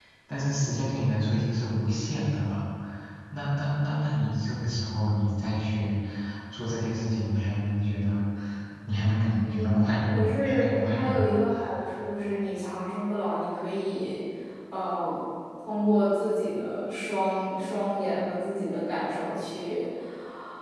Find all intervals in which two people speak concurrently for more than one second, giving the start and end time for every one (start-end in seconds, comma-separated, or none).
9.4-11.3